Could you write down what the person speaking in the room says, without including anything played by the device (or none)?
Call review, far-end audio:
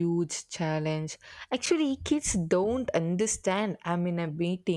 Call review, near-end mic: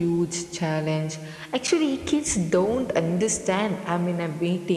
none